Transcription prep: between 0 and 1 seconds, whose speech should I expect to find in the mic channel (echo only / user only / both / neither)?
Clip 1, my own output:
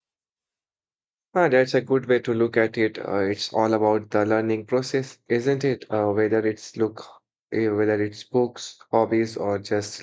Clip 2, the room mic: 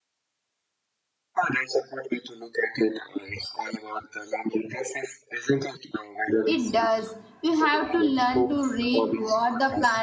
neither